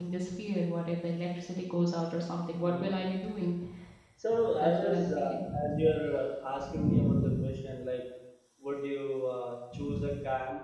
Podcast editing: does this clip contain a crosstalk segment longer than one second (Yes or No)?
Yes